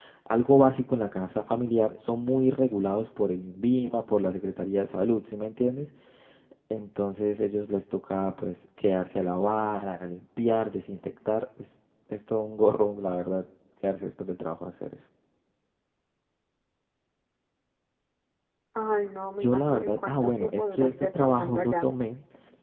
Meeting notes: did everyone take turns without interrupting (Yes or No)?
No